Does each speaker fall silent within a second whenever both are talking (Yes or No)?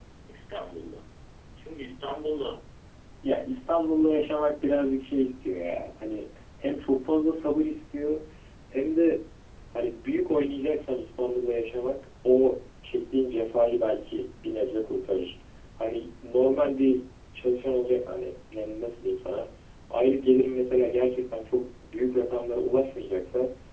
Yes